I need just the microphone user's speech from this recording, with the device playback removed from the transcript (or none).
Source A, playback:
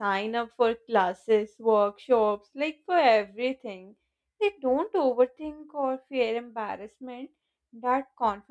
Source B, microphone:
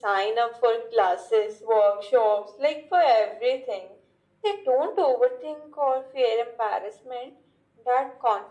none